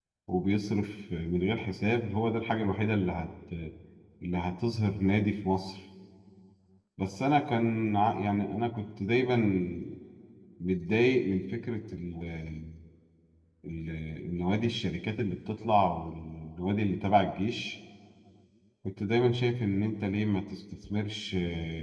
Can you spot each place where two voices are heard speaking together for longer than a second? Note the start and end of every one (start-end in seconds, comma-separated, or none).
none